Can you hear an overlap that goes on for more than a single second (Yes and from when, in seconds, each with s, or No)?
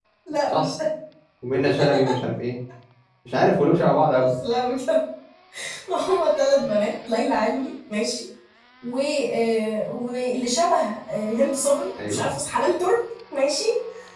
No